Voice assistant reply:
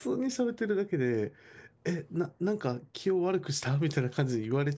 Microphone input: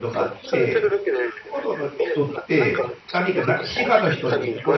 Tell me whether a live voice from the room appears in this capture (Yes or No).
Yes